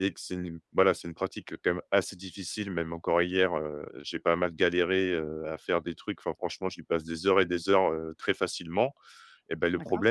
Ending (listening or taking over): listening